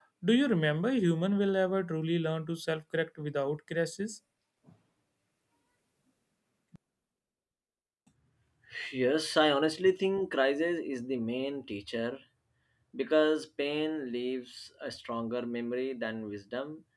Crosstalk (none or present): none